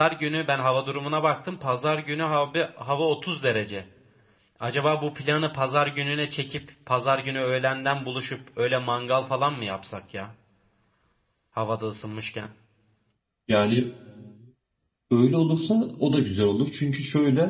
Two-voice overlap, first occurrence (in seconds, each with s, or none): none